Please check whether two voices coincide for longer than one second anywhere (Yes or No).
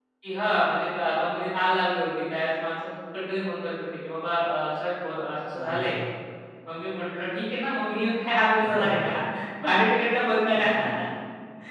No